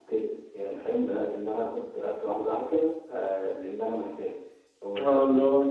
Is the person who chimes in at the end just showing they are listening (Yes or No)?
No